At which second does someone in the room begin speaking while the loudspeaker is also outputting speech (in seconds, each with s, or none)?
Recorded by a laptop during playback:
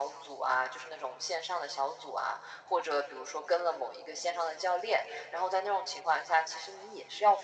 none